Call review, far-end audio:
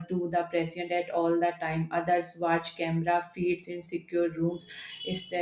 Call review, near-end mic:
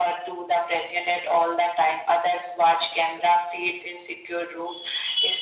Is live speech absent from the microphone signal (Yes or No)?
Yes